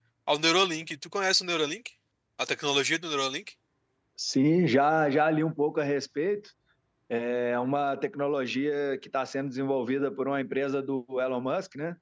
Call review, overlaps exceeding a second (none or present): none